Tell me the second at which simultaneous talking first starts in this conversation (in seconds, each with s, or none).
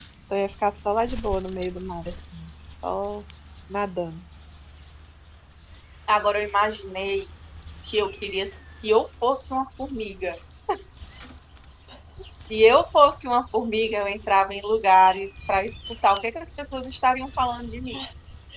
none